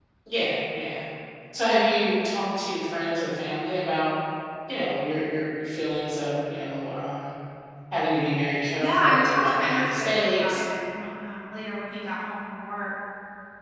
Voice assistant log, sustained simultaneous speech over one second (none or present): present